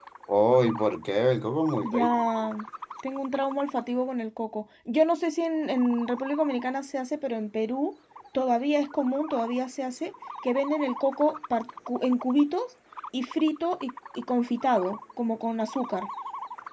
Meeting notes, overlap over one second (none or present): none